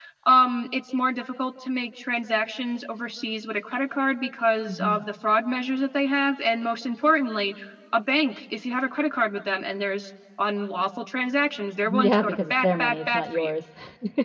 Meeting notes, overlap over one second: present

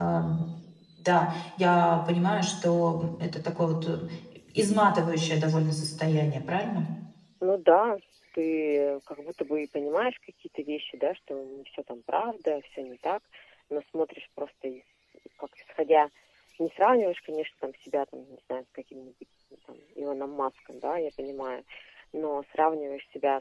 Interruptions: none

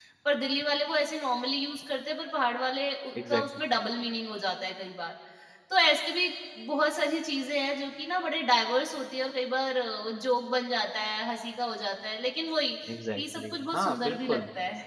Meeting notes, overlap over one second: present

